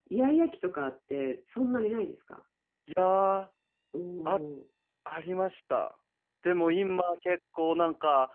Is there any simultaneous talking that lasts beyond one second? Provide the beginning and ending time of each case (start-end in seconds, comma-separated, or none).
none